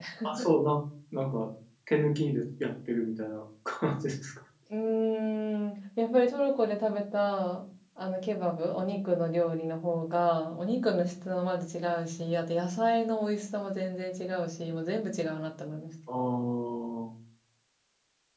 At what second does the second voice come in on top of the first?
none

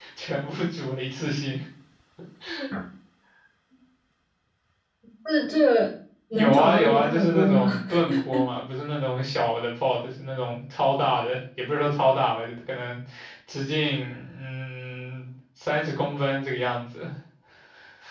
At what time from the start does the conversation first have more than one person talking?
6.3 s

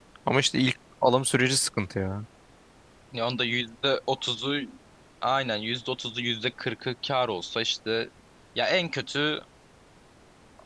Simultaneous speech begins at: none

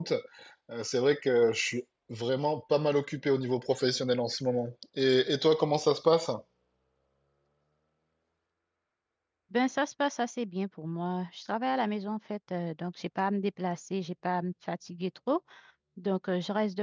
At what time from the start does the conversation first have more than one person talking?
none

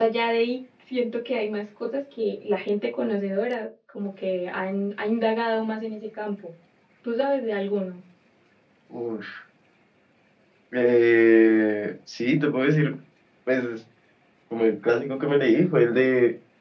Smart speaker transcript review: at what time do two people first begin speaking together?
none

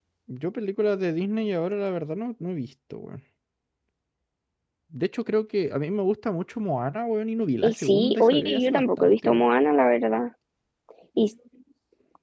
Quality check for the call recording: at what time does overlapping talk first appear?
7.6 s

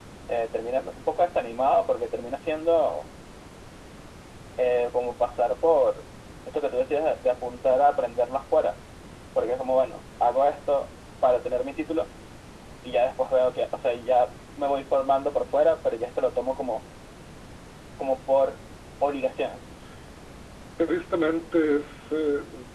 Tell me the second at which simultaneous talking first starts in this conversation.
none

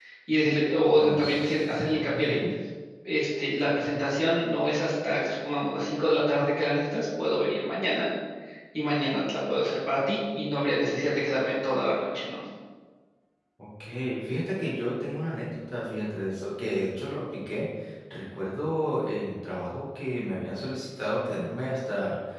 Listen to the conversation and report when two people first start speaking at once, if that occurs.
1.0 s

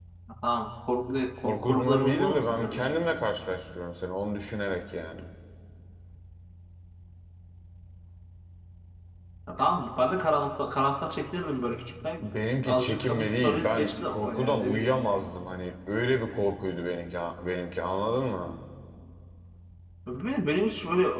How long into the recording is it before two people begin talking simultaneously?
1.4 s

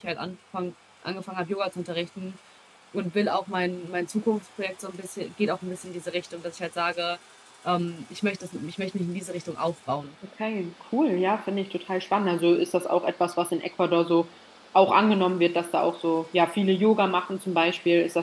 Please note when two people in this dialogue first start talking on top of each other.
none

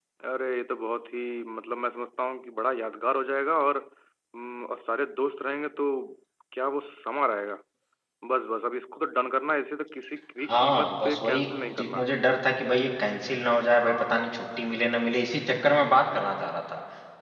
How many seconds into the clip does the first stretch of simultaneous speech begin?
10.5 s

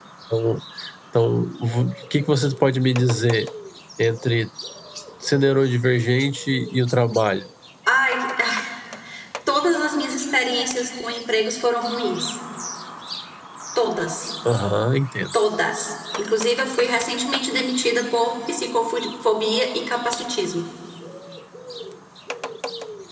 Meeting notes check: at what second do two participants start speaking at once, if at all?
none

